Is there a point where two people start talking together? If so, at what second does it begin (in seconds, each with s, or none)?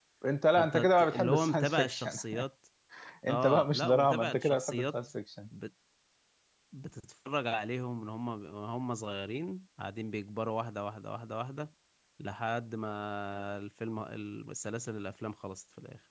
0.6 s